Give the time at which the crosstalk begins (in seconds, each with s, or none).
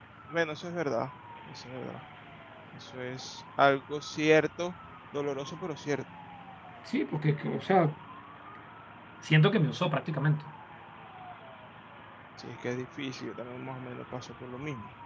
none